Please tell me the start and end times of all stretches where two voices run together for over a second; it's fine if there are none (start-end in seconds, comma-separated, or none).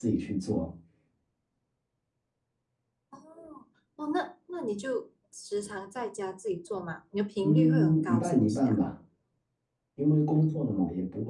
7.4-8.8